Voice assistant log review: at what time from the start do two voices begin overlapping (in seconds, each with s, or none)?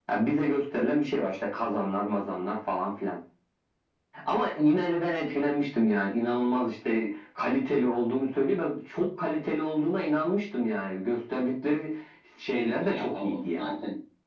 12.5 s